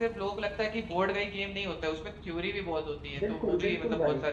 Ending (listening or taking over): taking over